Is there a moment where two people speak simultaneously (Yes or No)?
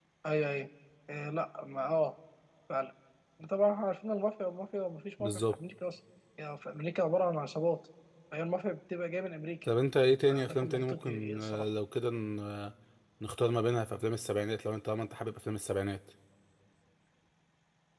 Yes